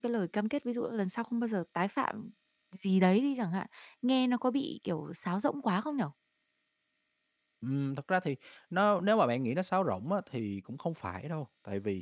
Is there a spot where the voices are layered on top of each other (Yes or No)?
No